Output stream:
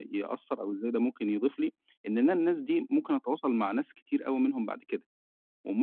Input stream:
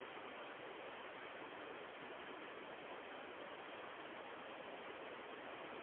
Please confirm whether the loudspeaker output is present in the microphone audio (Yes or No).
No